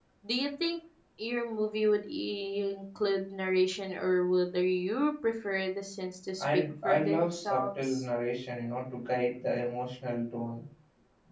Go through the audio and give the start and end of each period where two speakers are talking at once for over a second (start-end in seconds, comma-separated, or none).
6.4-8.0